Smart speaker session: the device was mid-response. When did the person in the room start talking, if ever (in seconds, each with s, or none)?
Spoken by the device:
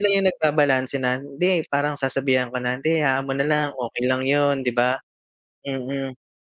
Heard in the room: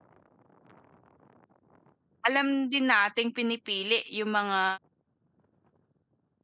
2.3 s